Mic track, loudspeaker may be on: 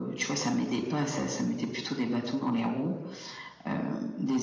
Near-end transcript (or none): none